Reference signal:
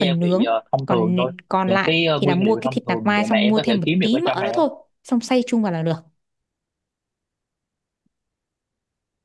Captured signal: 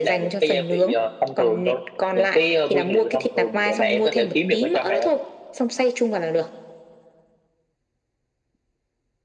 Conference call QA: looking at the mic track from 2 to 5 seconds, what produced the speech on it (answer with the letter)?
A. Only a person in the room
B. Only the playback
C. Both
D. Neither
B